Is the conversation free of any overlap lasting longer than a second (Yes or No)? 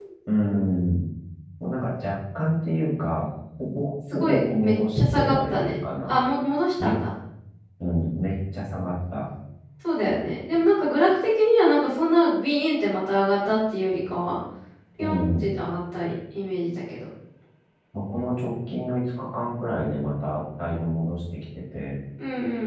No